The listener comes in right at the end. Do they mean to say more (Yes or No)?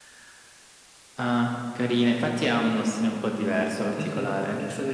Yes